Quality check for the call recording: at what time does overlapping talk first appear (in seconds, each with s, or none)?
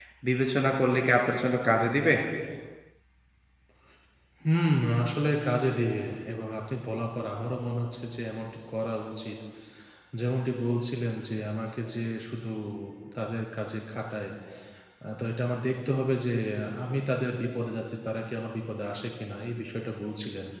none